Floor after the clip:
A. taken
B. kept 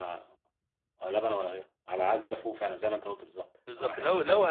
A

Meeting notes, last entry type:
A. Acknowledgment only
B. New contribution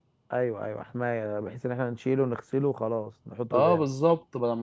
B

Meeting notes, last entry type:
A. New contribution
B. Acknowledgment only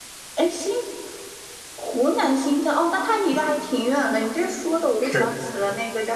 B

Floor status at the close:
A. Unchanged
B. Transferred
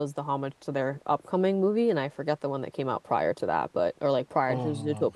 A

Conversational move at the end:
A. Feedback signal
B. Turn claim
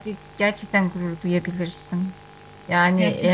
B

